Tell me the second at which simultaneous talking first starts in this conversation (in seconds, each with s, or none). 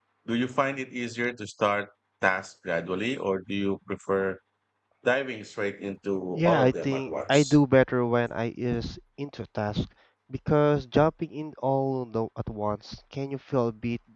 6.3 s